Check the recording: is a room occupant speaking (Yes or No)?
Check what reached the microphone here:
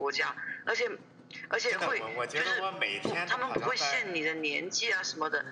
Yes